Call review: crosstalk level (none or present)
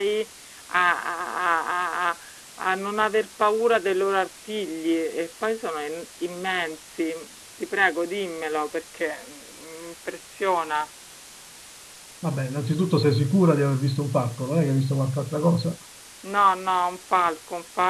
none